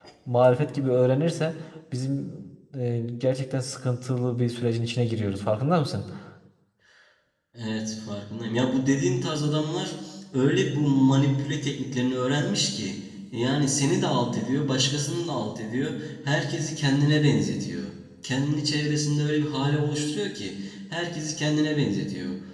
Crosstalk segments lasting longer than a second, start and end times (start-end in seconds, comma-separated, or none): none